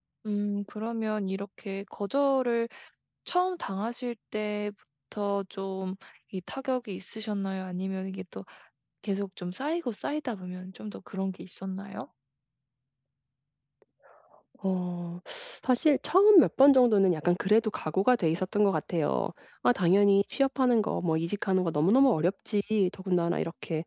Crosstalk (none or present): none